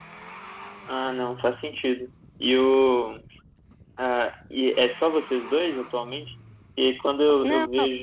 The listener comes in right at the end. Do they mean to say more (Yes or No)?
No